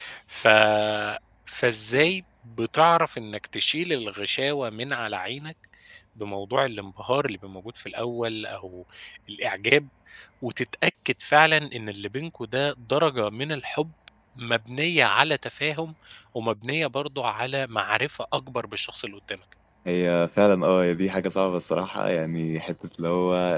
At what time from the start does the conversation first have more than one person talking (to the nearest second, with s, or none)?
none